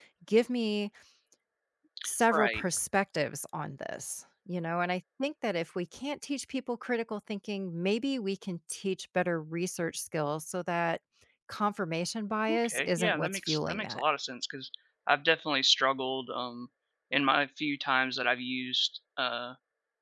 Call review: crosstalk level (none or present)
present